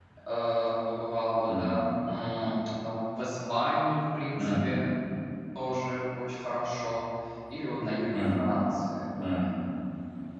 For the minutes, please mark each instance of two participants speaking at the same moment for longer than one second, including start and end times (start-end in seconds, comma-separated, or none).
none